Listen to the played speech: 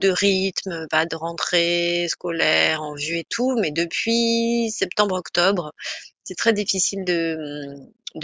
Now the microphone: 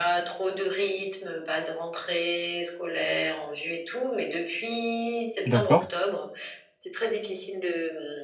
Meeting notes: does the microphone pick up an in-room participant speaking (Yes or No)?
Yes